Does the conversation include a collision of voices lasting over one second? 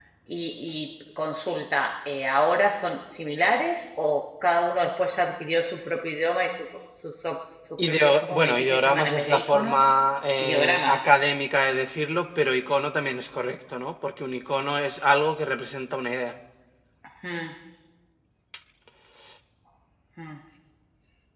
Yes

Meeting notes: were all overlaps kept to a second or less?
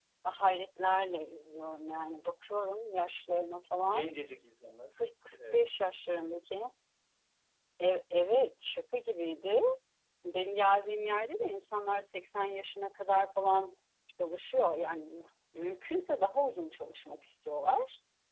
Yes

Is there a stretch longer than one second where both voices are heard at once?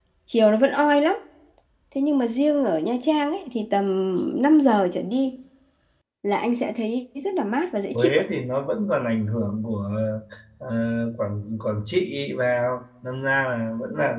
No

